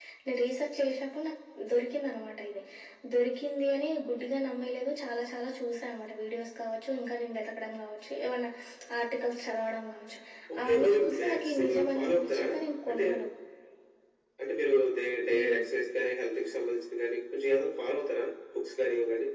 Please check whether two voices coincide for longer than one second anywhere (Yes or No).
Yes